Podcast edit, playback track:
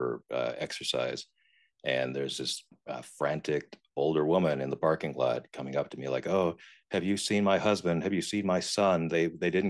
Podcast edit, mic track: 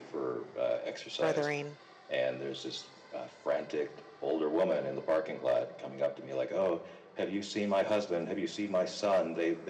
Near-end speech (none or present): present